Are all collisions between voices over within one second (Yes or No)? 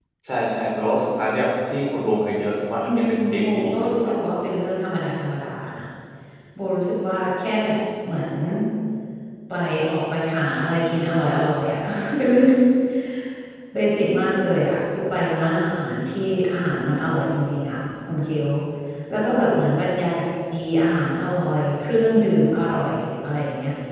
No